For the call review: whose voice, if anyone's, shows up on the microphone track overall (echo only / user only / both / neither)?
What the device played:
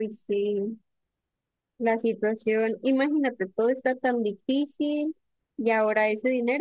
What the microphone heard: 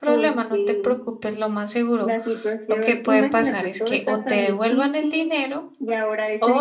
both